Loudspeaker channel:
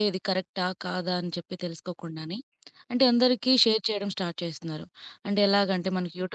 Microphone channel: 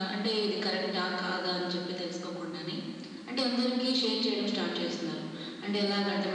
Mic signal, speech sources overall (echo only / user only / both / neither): echo only